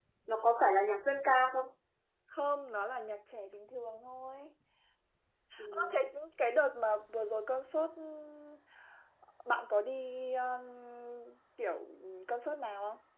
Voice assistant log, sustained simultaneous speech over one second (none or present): none